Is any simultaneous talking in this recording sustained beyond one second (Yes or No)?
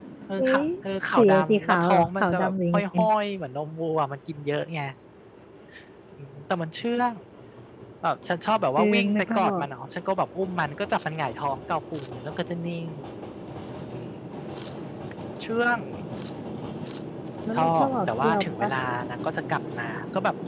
Yes